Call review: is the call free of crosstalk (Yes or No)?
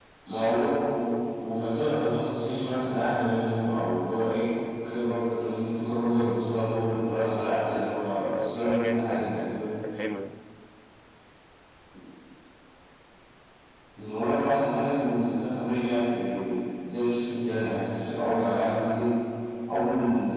No